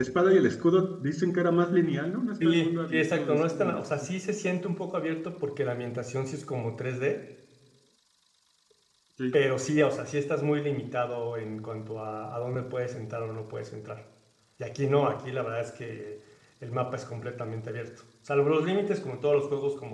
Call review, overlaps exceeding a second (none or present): present